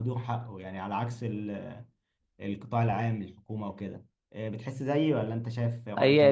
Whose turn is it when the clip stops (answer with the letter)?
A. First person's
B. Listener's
B